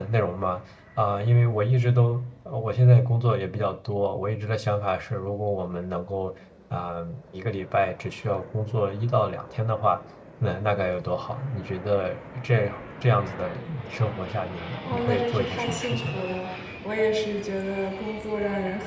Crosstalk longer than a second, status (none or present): present